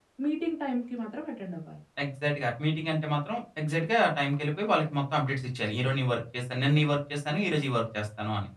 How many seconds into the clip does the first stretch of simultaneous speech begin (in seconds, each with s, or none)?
none